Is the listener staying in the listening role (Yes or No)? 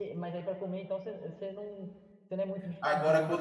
No